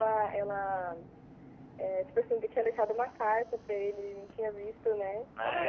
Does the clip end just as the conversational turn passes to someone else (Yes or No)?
Yes